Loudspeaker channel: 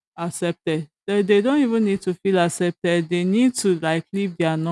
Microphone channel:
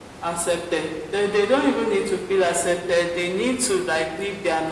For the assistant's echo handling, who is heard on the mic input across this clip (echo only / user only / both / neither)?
echo only